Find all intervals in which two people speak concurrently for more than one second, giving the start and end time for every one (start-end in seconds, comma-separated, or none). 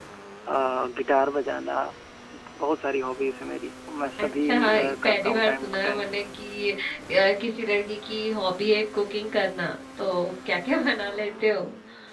4.2-6.1